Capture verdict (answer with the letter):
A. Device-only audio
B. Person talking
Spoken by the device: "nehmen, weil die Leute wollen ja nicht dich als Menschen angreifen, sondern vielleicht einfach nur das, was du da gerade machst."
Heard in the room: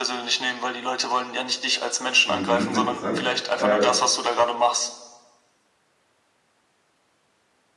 B